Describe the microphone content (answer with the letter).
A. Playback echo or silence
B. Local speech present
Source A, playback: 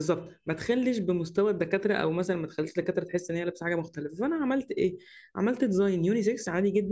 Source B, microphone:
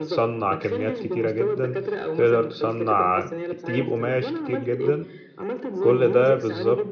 B